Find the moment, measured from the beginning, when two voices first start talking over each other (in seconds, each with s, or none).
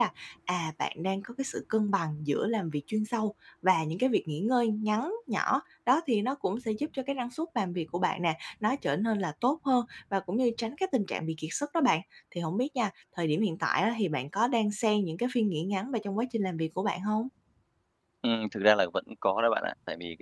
none